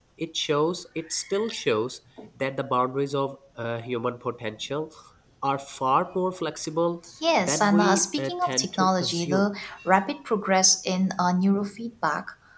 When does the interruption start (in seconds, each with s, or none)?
7.2 s